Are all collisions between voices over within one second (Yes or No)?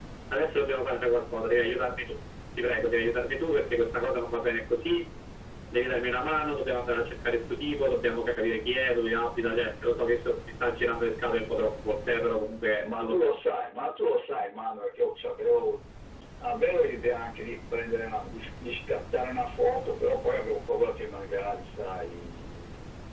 Yes